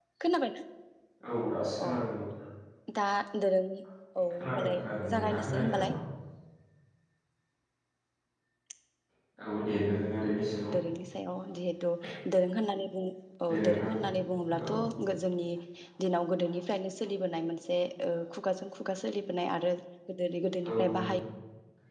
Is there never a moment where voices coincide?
No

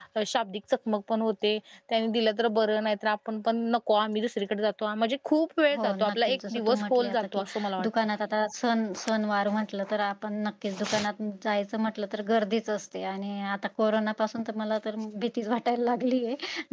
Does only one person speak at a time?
No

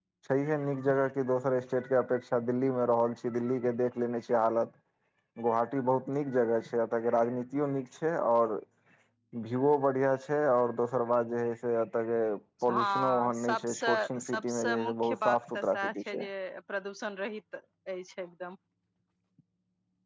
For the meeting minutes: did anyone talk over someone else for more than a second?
Yes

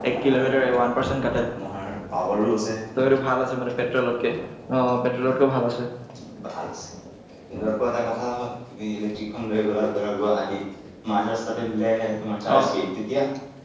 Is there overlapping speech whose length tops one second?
No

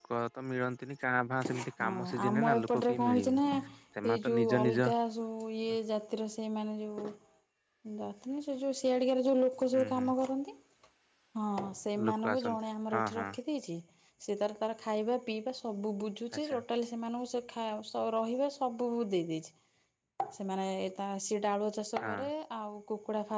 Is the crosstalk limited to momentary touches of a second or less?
No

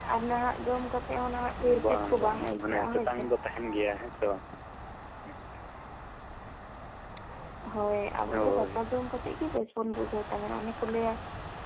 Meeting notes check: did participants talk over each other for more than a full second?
Yes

